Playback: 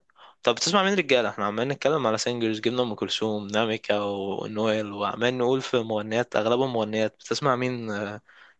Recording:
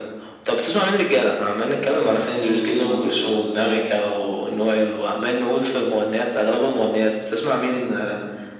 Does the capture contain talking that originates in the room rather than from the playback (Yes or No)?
No